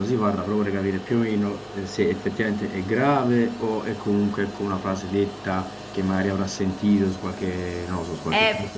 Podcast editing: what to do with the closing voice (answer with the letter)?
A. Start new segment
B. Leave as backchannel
A